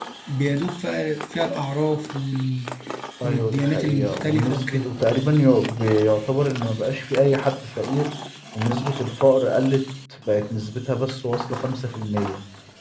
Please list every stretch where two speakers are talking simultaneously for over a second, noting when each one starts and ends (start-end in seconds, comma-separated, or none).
3.2-4.8